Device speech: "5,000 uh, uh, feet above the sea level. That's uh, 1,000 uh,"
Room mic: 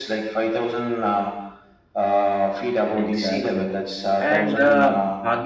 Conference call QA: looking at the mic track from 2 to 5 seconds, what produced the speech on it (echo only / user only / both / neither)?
both